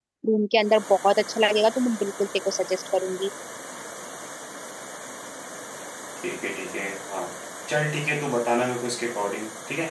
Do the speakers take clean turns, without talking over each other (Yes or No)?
Yes